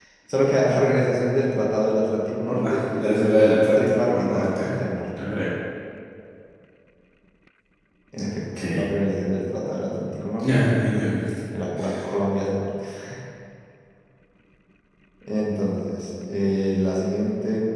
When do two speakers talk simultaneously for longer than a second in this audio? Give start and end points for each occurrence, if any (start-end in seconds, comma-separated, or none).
2.5-4.7